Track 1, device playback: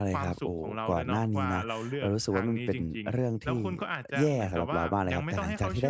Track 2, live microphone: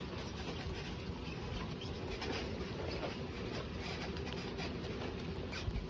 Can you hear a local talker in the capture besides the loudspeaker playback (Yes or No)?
No